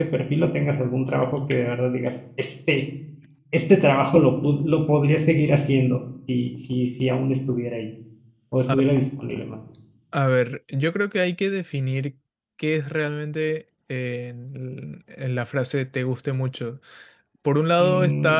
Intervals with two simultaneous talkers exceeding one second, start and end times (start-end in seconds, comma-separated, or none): none